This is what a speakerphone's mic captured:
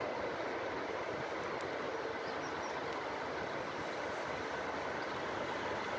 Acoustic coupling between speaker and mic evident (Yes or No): No